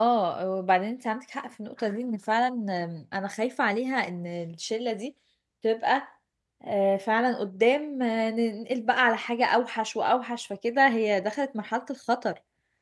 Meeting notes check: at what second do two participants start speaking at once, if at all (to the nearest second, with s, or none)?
none